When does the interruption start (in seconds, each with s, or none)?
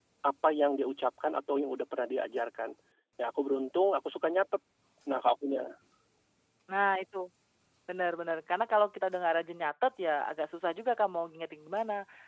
none